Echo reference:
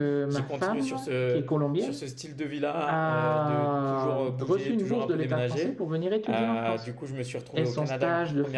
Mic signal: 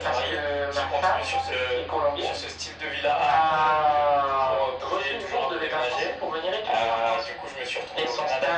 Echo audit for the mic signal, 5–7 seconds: echo only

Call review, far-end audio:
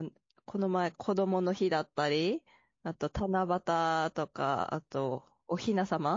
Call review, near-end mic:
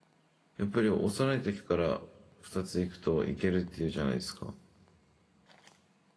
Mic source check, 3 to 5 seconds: user only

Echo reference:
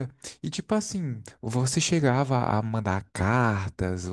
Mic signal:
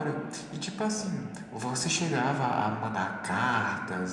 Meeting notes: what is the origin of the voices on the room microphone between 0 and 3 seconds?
echo only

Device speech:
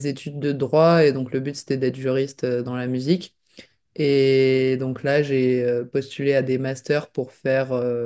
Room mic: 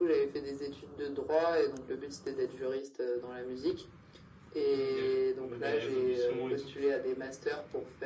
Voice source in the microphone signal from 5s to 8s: both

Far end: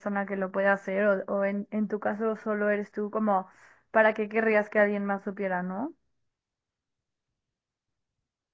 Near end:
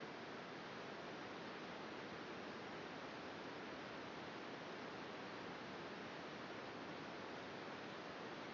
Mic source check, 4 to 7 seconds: neither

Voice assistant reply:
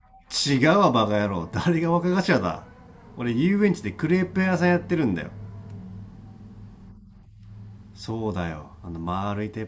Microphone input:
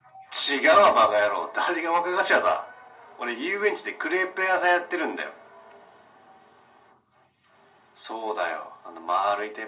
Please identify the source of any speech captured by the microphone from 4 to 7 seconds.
echo only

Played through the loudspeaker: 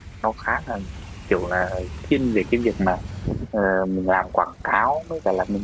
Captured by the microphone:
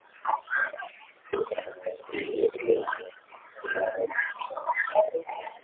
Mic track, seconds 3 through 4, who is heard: echo only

